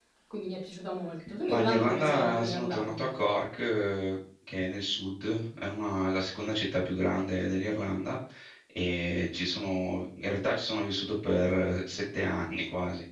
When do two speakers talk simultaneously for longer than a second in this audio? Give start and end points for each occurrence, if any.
1.5-3.1

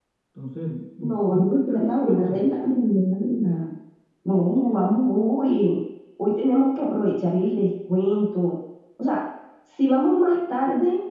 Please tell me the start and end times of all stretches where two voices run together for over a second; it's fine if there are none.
1.0-2.4

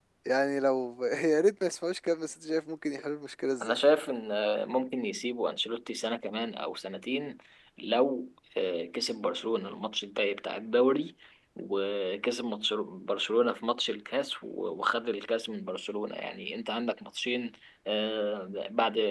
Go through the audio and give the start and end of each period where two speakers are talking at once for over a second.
none

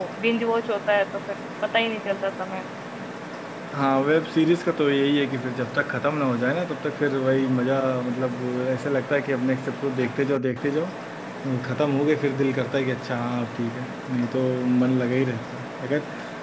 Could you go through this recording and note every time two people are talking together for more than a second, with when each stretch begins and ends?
none

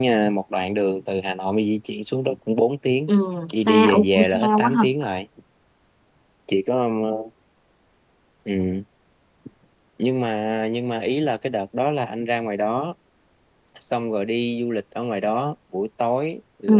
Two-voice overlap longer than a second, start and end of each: 3.5-4.8

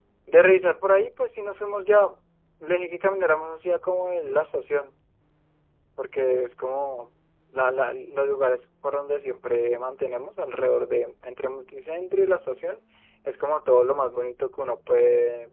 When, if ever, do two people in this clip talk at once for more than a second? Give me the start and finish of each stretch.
none

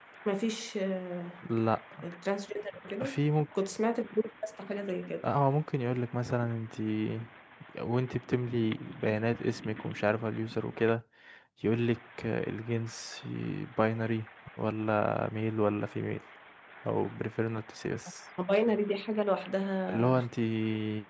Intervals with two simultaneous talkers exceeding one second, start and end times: none

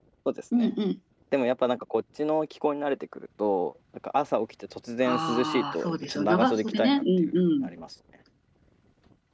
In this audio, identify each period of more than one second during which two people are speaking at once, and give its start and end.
5.0-7.7

